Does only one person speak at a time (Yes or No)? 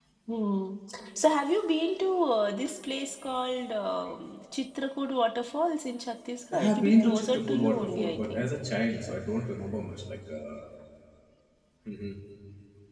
No